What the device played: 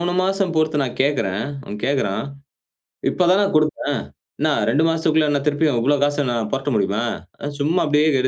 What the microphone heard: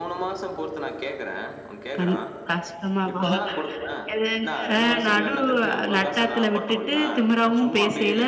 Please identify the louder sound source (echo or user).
user